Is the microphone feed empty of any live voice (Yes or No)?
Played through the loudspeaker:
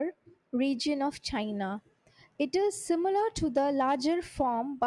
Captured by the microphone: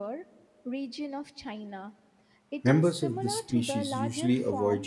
No